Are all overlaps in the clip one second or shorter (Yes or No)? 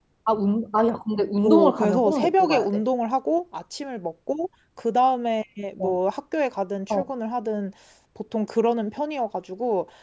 No